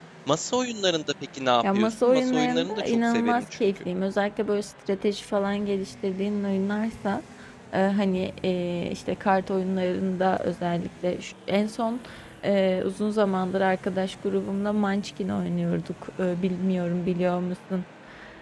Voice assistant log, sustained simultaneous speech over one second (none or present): present